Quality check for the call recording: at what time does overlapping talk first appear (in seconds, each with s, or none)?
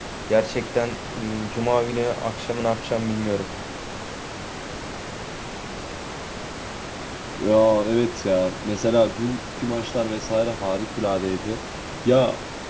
none